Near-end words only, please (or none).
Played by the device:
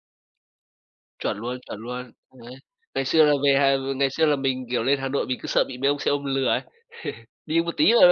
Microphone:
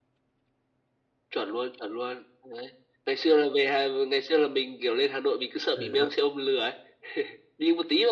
Ừ, đúng.